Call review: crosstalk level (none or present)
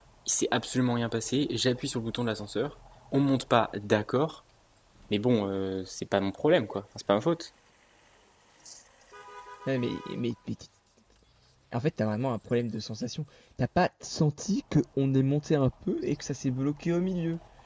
none